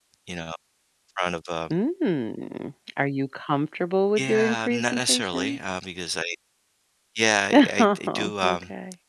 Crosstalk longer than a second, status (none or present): present